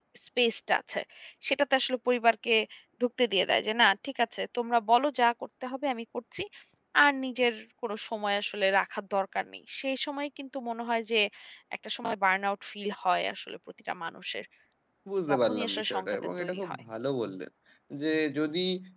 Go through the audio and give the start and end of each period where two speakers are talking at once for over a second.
15.3-16.8

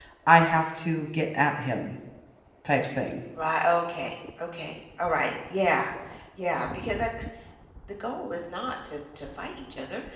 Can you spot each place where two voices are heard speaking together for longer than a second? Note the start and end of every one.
none

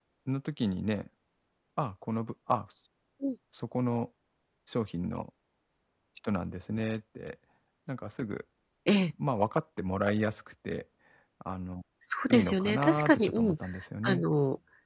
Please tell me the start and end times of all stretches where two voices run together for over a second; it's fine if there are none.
12.3-13.6

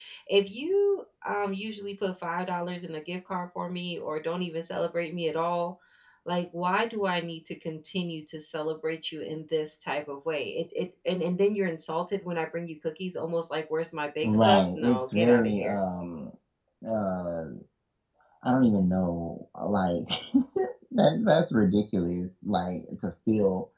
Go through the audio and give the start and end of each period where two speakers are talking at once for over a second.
14.2-15.8

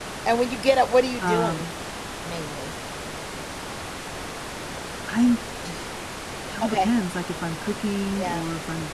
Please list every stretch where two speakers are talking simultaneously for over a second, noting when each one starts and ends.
none

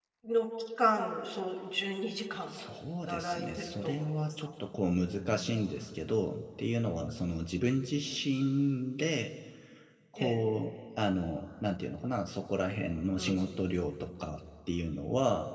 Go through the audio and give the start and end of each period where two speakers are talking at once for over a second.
3.1-4.5

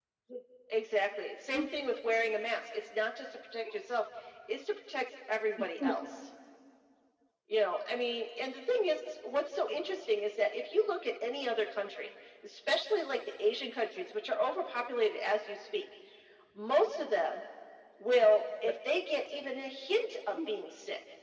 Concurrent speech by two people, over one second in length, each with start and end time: none

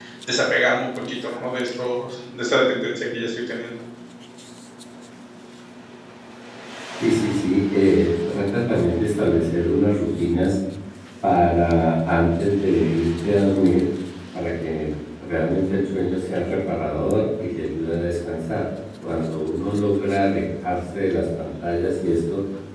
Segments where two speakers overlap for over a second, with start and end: none

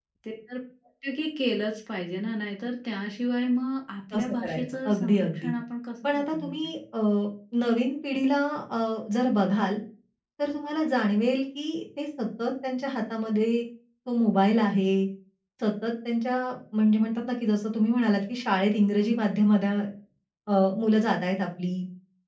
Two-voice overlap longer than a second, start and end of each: 4.1-5.5

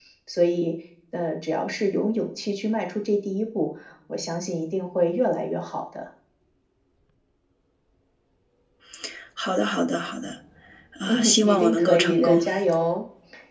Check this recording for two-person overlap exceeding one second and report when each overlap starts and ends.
11.1-12.4

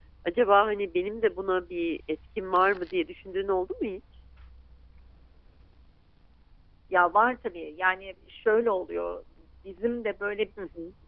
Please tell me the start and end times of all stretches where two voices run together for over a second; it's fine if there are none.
none

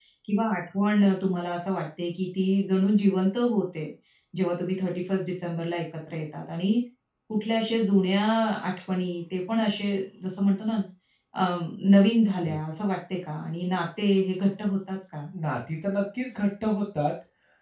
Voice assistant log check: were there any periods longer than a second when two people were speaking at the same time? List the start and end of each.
none

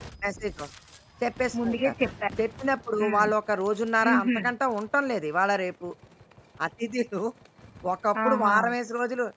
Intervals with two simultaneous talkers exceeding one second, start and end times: none

